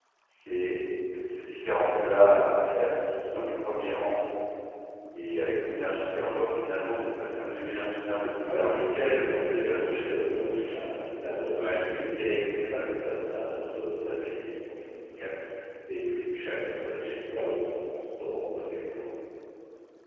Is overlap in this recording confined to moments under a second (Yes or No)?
No